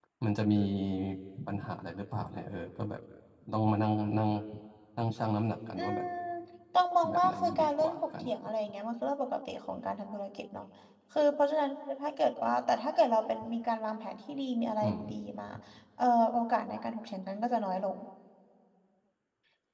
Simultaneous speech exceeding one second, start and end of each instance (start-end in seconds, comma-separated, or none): 7.1-8.3